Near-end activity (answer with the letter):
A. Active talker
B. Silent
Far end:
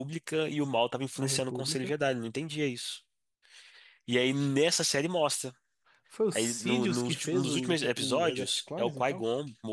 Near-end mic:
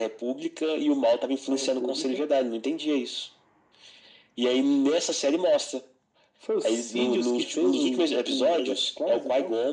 B